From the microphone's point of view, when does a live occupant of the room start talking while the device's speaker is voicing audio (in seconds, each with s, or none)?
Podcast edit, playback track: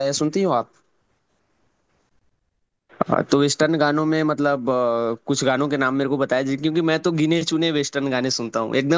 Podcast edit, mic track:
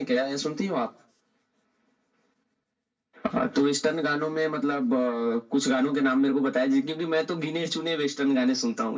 none